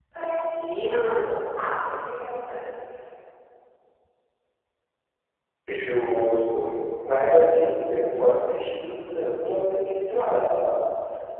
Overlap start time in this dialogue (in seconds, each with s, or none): none